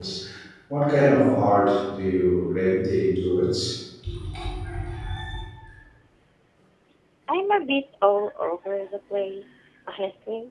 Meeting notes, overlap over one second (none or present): none